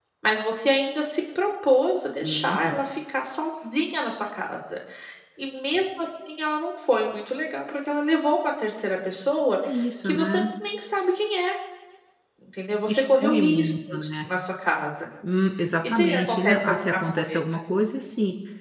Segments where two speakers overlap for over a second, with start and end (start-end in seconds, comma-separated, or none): 12.9-14.1, 15.9-17.4